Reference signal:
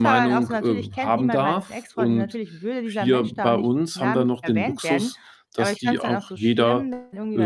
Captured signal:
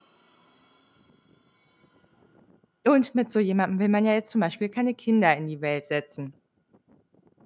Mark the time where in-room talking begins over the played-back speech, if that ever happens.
2.8 s

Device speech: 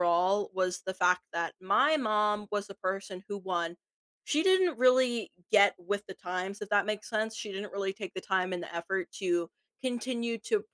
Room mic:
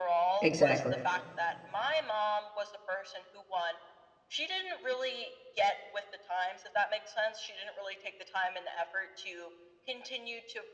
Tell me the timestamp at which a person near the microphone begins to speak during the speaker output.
0.4 s

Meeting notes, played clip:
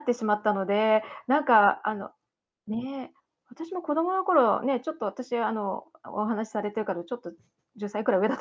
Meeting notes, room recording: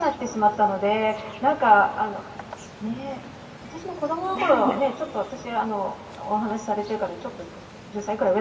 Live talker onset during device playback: 4.3 s

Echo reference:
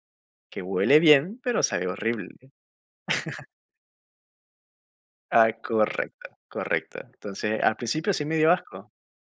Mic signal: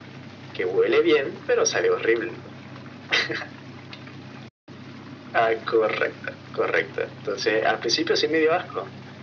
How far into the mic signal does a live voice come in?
none

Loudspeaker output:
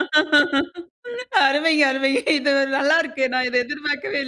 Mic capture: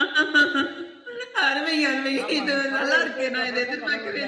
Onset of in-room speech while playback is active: 2.2 s

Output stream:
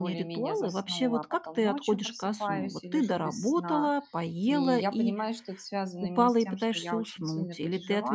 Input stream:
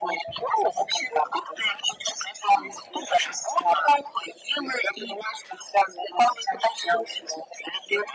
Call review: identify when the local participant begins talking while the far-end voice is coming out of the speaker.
none

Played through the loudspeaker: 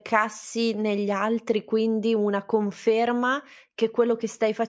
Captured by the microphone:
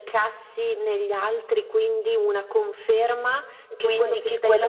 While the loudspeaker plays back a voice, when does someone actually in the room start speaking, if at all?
3.7 s

